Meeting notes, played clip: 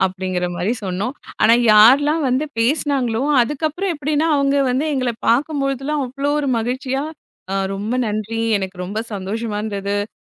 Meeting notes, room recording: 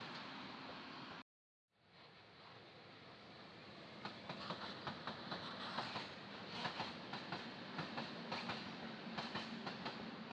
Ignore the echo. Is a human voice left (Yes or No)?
No